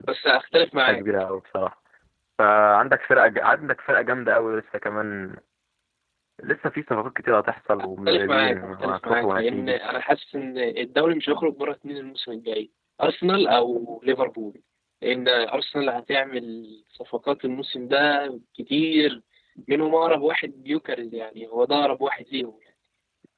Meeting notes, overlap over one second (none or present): present